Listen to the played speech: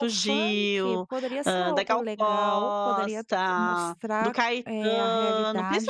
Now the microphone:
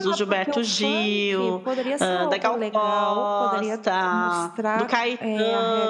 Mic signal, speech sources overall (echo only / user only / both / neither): echo only